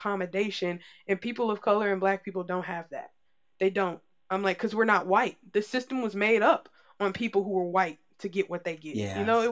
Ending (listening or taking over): taking over